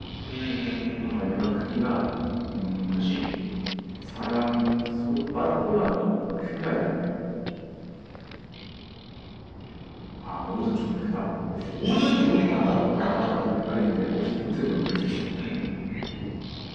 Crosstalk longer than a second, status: present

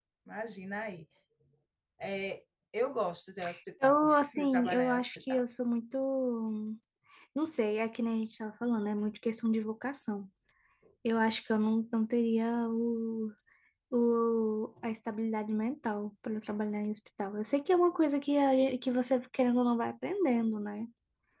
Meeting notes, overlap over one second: present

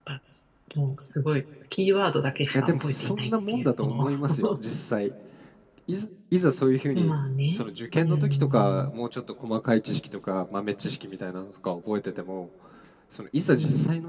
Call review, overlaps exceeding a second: present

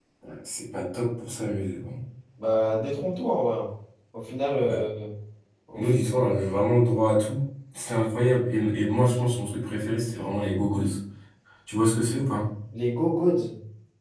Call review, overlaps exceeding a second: none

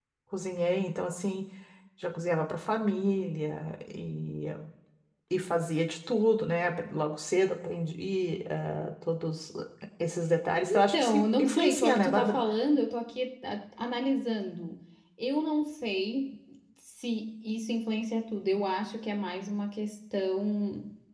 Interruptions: present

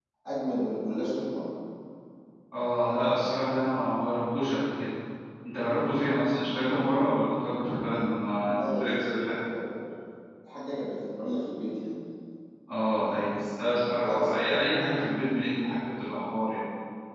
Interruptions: present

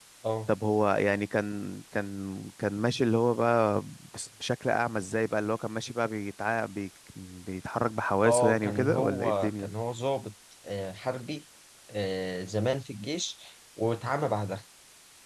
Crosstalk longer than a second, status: present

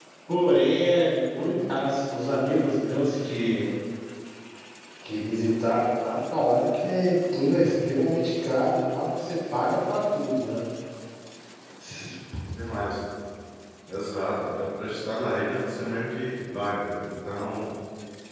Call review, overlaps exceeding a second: none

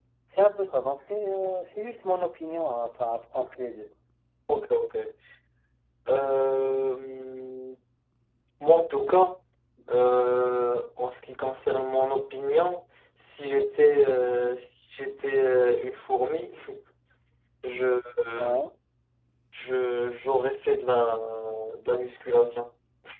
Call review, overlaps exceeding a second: none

